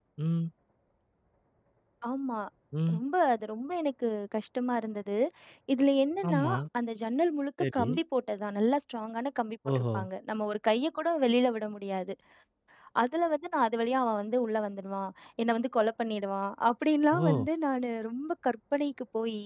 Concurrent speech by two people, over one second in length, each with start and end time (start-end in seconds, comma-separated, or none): none